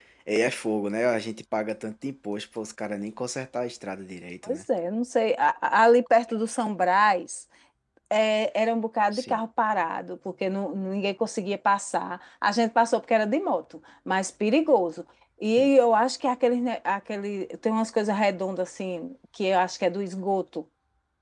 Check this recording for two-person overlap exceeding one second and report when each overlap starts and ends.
none

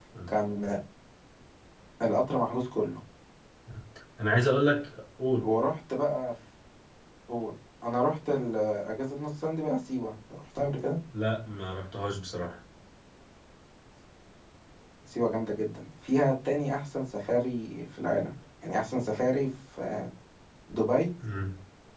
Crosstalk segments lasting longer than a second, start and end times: none

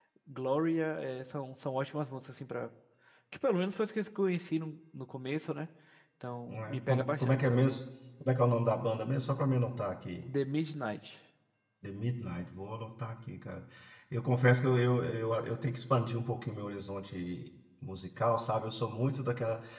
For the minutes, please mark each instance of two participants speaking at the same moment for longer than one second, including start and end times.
6.5-7.8

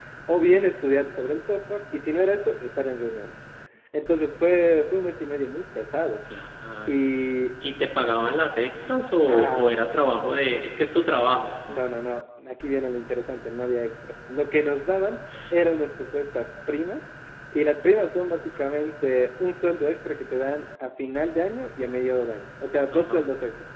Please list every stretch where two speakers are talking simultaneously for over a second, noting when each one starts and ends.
none

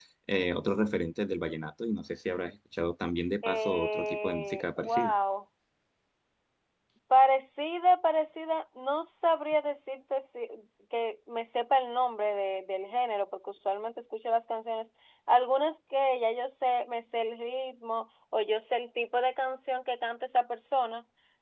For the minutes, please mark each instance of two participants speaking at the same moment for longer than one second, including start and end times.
3.4-5.1

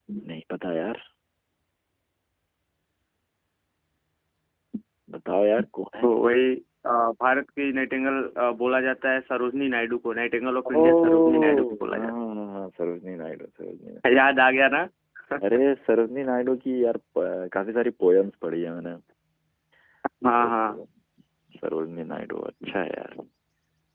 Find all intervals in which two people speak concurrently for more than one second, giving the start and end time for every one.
10.7-12.1

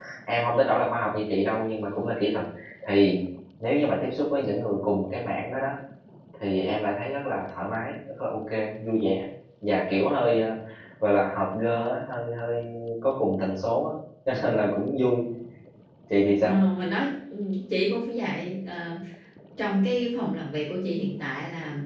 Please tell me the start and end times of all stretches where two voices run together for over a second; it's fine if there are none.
none

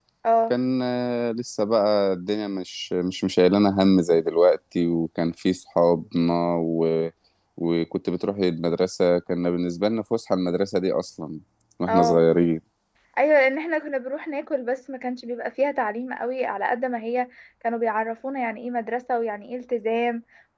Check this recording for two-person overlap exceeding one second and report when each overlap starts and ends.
none

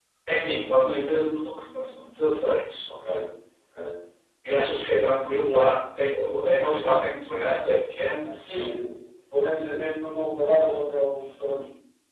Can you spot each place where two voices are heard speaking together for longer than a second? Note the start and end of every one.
none

